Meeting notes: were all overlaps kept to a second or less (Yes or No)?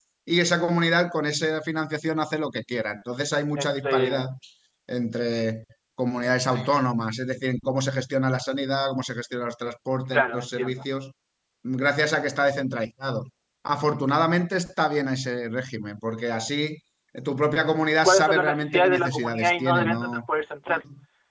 No